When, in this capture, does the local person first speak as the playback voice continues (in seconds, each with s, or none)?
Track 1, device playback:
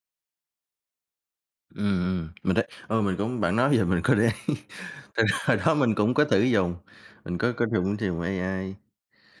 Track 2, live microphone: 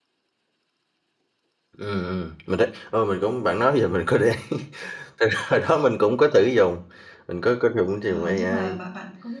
8.0 s